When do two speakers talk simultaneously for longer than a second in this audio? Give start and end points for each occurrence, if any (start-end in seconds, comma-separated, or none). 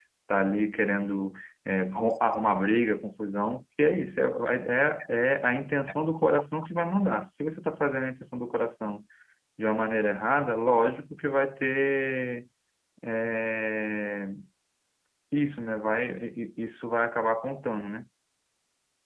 none